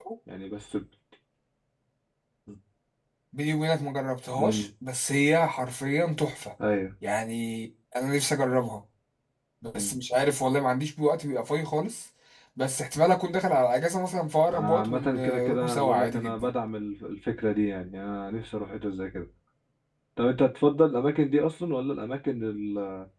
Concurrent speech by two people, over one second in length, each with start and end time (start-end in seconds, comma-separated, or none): 14.5-16.5